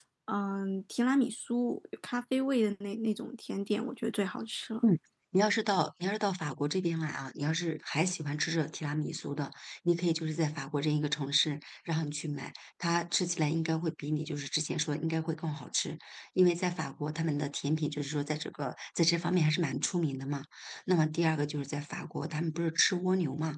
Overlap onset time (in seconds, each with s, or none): none